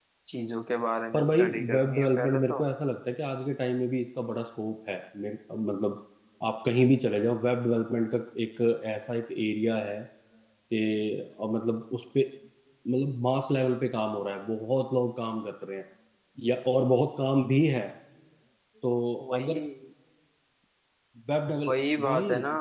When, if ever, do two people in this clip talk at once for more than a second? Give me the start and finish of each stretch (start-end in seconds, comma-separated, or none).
1.1-2.6